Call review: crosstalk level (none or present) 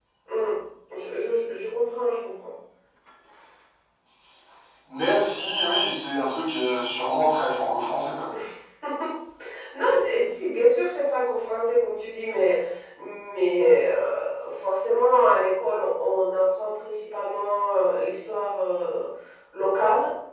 none